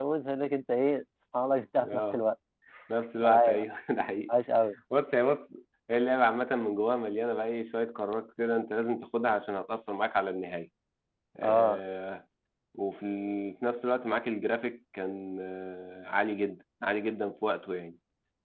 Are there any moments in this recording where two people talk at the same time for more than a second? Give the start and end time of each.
none

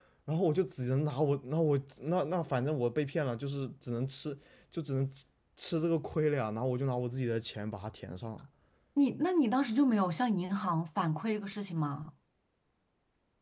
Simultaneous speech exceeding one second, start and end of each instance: none

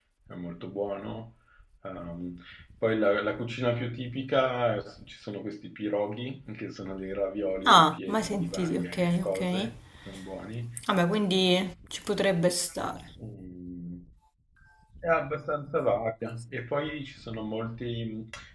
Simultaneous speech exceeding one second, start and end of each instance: 7.7-9.4

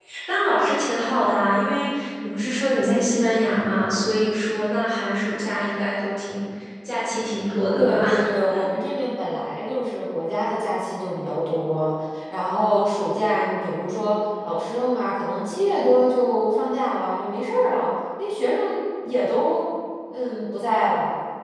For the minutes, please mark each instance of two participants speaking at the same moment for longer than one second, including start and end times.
none

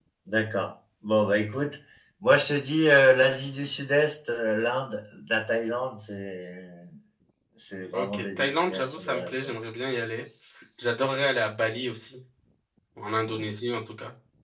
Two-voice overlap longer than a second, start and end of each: 7.9-9.5

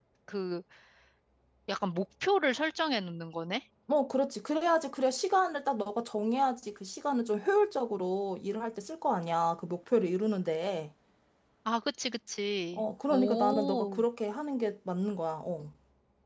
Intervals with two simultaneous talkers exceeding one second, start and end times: 12.7-14.0

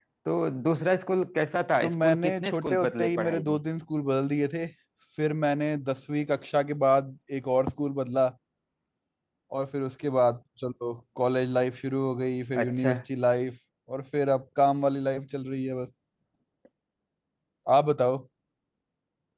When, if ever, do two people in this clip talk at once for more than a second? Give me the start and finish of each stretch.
1.8-3.6

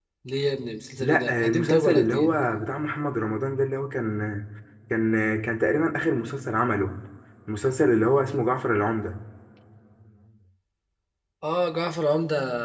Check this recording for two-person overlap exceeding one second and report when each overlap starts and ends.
1.0-2.3

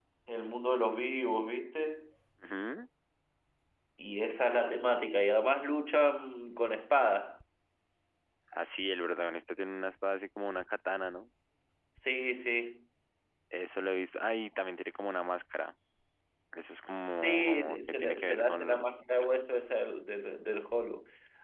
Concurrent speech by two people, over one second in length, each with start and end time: 17.2-19.0

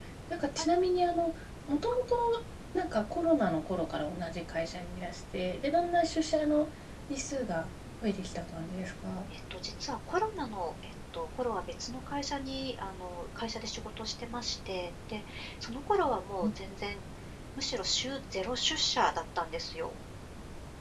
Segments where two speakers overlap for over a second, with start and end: none

